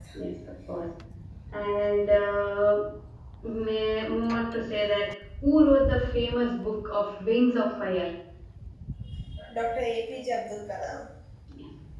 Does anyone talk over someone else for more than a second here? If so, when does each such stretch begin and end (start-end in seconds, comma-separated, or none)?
none